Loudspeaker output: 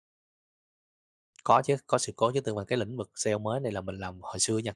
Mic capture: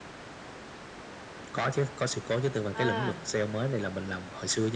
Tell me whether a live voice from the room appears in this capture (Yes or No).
Yes